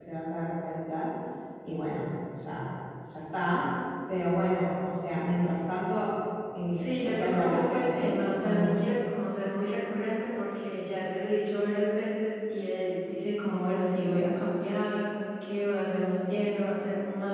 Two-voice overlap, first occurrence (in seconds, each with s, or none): 6.7 s